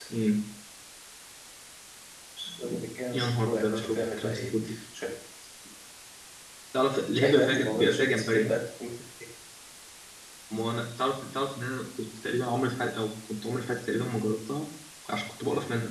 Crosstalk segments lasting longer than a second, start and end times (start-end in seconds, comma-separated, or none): 3.1-4.5, 7.2-8.5